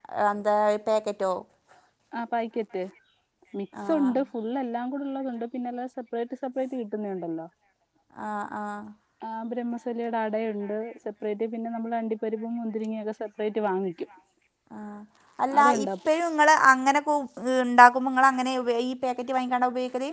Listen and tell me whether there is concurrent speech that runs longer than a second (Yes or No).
No